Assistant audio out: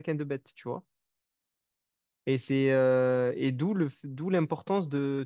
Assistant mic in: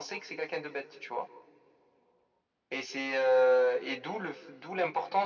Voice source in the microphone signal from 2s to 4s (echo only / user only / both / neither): echo only